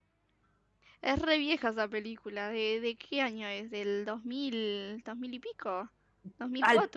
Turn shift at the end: Yes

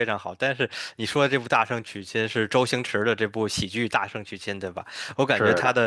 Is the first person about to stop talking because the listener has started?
No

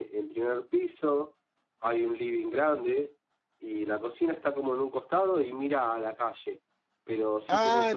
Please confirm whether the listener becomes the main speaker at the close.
Yes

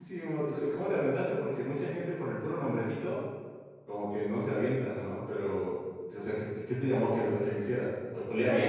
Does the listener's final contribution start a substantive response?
Yes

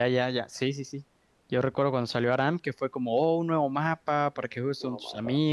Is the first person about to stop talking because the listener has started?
No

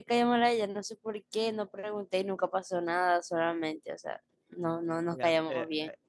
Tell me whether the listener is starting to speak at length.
Yes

